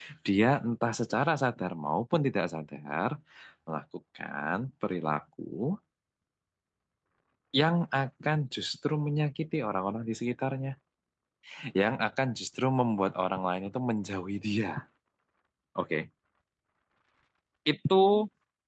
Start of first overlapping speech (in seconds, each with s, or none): none